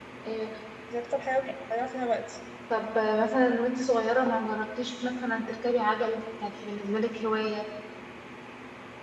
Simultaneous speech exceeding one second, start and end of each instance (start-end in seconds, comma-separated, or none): none